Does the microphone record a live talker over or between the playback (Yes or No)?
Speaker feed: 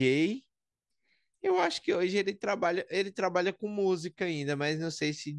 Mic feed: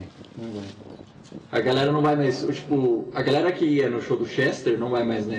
Yes